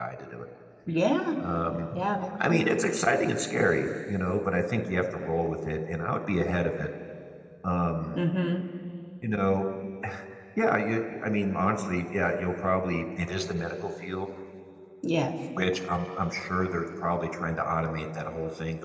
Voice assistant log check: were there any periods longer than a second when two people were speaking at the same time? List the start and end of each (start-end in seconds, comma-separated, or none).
none